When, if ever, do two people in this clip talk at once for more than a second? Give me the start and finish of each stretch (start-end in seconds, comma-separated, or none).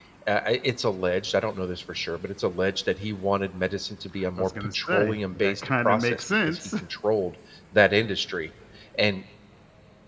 4.4-6.7